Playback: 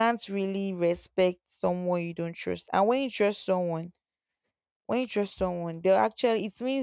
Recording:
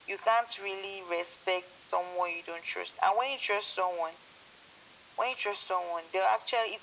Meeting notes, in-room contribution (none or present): none